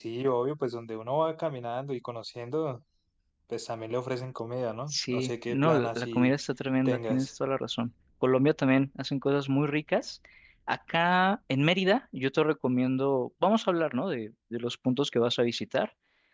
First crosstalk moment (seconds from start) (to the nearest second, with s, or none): 5 s